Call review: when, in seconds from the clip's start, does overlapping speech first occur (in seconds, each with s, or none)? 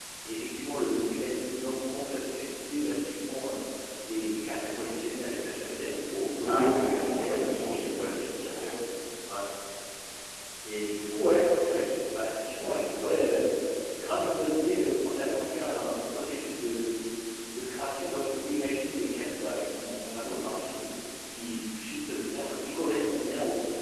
6.3 s